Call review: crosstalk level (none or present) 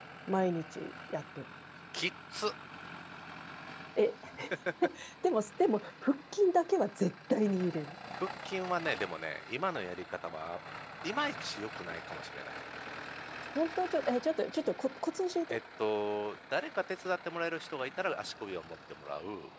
none